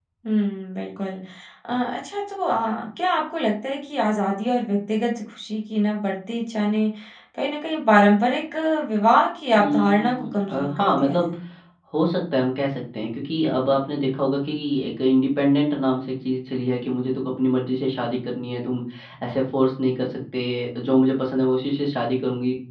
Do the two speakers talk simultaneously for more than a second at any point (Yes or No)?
Yes